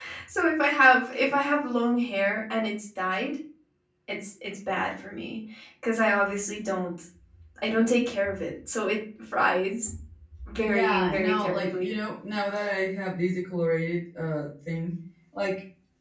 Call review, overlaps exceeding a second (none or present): present